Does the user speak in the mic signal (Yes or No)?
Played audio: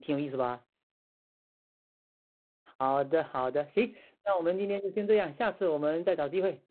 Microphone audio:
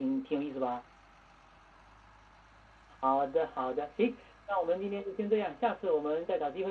No